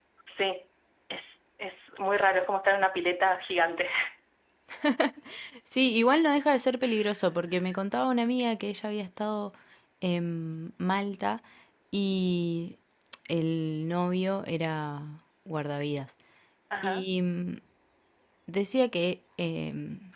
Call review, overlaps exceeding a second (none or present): none